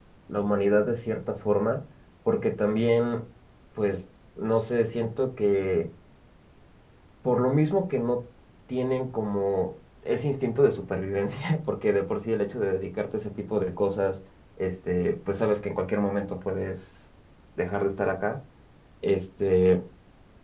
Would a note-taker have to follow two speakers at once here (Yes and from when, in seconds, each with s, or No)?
No